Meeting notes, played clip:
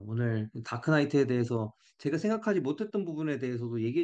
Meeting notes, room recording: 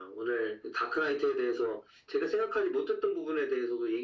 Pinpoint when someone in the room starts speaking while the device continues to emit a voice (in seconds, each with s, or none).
none